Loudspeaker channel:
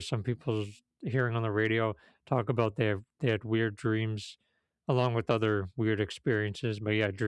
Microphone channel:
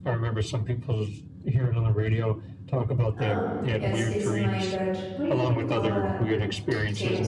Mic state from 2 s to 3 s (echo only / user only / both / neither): echo only